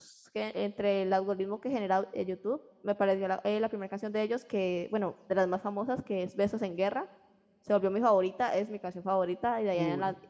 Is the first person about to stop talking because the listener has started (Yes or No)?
No